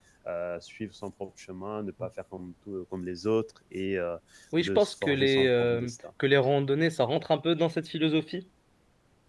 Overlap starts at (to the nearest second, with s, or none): 5 s